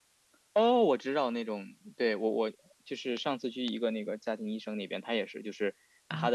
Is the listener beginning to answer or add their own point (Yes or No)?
No